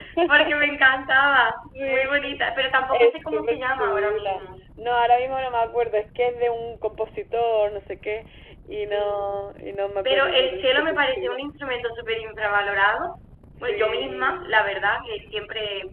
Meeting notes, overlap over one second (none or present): present